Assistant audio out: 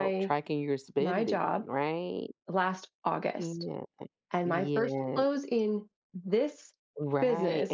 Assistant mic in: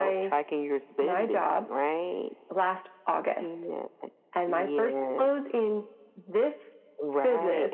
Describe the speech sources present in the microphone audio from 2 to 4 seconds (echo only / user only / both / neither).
echo only